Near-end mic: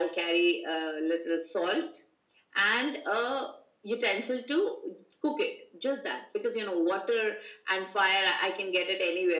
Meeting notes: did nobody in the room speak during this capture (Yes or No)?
Yes